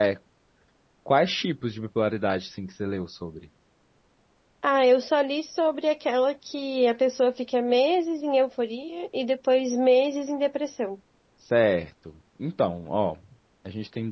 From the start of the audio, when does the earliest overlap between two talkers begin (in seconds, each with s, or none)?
none